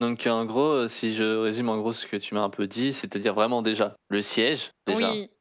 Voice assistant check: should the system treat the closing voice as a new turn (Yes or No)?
No